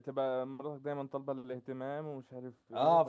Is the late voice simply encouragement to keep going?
No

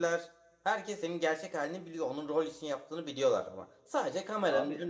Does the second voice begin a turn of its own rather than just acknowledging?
No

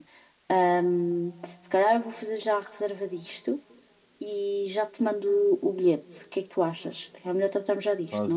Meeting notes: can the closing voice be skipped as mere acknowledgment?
No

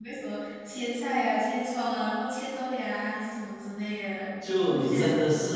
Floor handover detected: Yes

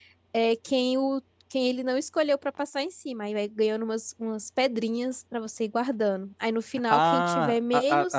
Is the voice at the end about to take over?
Yes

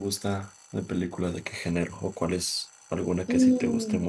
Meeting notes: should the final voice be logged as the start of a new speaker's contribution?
Yes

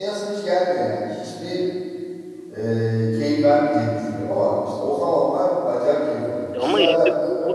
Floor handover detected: Yes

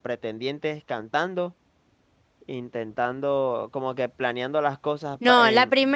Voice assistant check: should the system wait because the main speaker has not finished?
No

